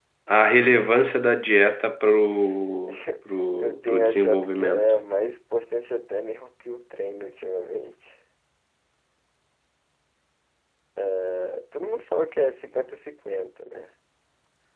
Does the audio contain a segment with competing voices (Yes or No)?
Yes